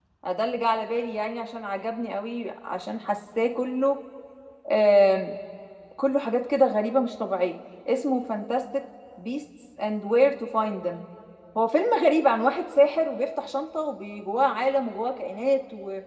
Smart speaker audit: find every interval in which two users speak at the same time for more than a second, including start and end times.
none

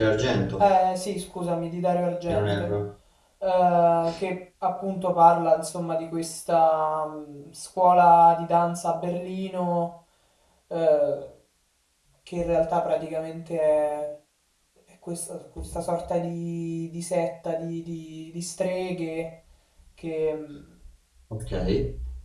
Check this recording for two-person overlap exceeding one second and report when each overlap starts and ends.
none

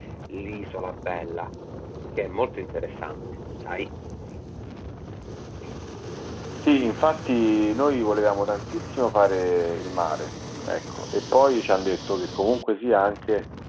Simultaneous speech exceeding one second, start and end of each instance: none

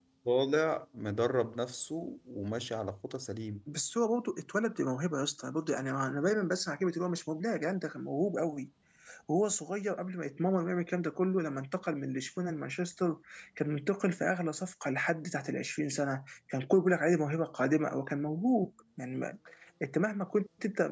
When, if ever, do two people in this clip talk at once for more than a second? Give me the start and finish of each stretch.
none

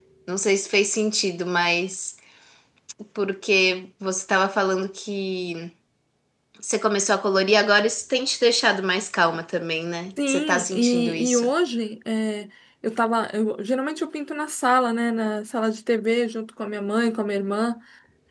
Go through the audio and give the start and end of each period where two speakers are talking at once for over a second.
10.3-11.5

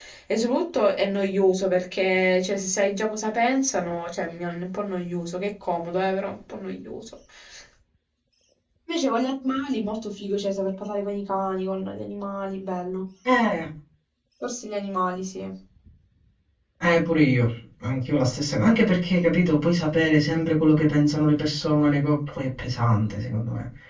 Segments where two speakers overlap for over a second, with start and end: none

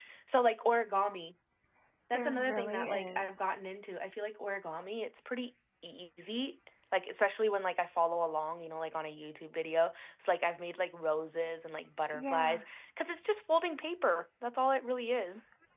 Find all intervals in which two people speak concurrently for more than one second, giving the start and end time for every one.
2.1-3.4

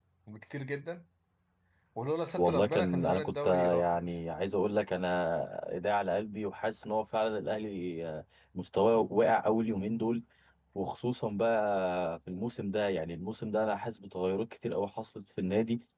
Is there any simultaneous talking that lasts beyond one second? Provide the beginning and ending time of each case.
2.4-4.1

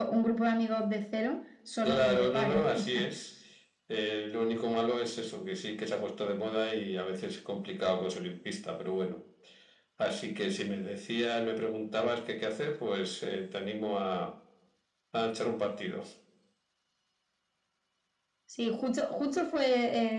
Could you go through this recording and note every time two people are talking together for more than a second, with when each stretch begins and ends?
1.9-3.1

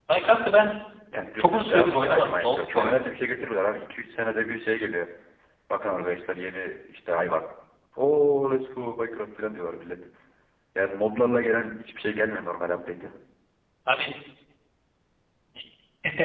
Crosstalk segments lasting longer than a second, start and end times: 1.4-3.1

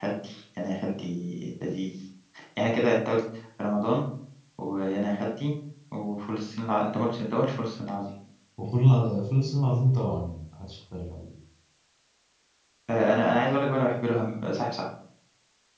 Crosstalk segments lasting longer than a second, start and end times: none

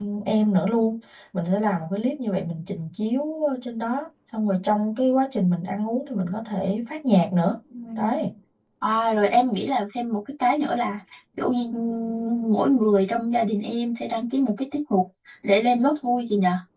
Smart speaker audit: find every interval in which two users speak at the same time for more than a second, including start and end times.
none

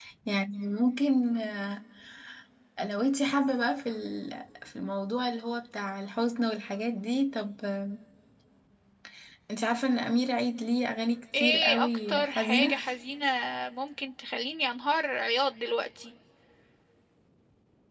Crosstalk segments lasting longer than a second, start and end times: 11.4-12.7

